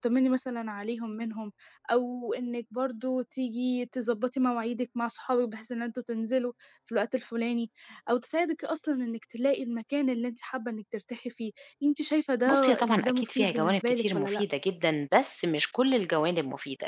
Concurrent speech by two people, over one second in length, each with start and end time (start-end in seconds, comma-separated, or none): 12.5-14.4